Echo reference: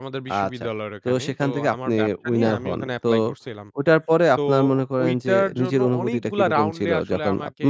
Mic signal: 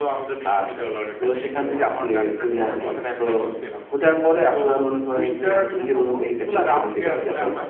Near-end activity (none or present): none